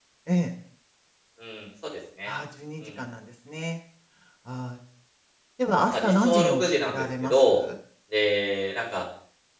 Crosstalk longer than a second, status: present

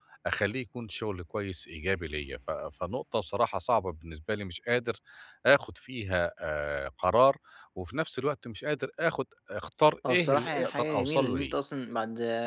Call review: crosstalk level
present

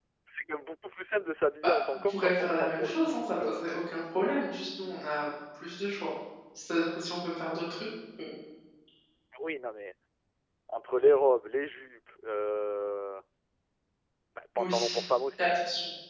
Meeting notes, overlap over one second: present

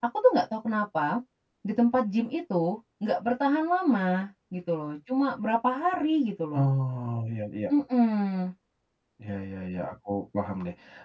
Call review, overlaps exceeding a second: none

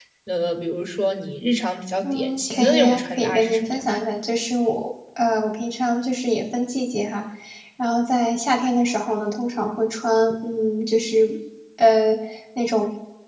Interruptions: present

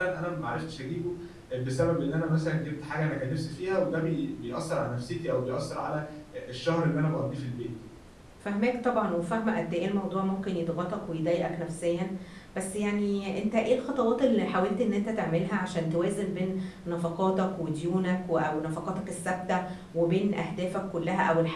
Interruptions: none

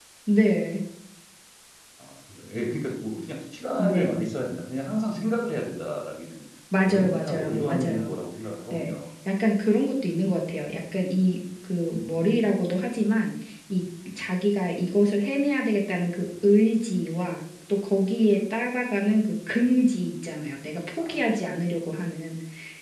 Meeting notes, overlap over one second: present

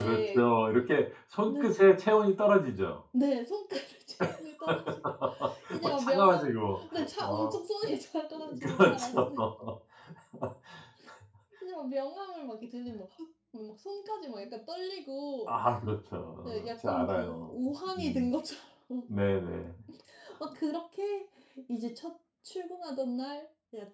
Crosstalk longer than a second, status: present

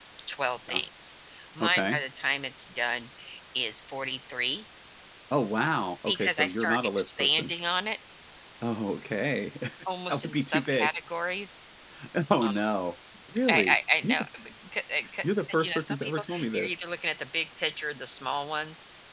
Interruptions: present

